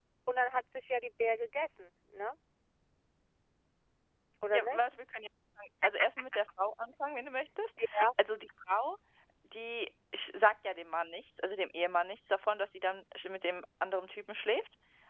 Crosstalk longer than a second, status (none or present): none